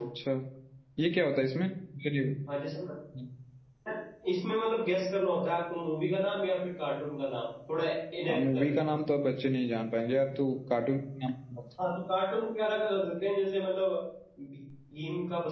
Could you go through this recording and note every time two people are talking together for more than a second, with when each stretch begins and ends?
none

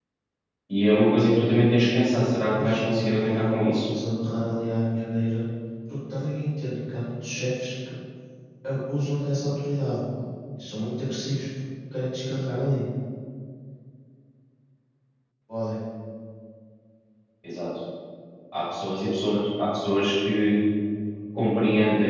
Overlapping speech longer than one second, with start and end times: 2.6-3.9

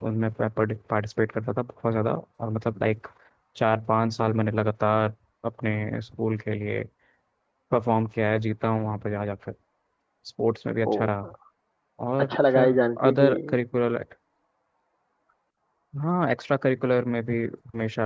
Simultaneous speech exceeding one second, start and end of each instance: 12.2-13.6

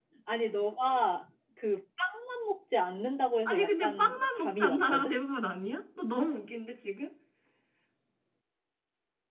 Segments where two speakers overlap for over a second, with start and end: 3.4-5.2

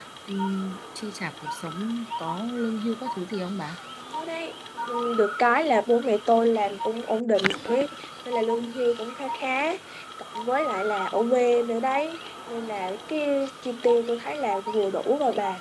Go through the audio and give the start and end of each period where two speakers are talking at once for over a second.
none

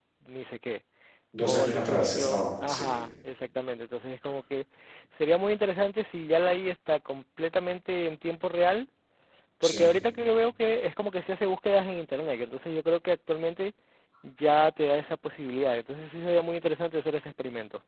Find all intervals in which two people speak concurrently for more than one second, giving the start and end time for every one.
1.4-2.9

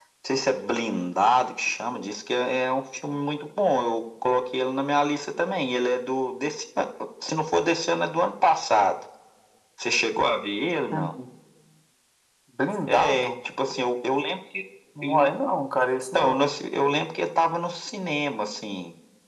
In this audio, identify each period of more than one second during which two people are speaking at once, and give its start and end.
none

